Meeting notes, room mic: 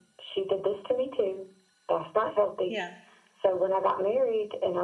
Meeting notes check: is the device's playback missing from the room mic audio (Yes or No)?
No